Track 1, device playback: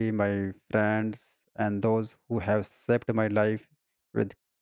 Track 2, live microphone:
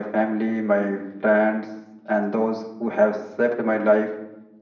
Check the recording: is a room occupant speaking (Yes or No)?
No